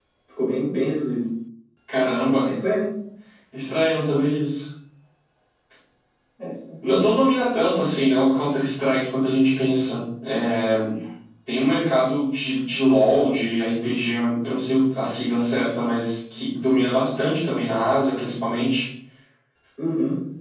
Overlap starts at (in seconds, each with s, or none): none